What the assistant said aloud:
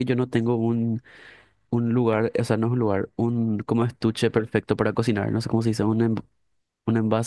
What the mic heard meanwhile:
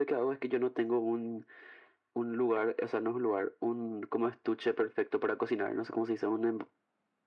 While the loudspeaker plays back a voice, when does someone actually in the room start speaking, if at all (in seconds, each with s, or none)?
none